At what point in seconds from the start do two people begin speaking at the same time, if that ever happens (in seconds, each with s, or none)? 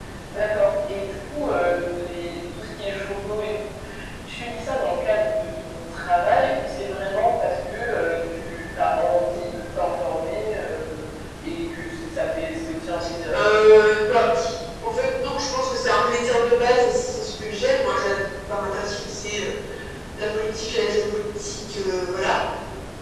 none